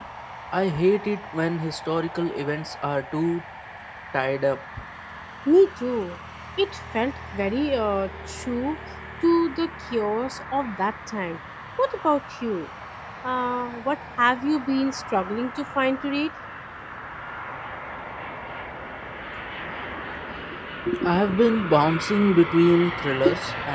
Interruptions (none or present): none